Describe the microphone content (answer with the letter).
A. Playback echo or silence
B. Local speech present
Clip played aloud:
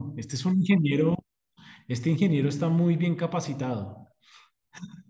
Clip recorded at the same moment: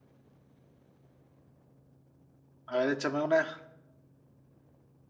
B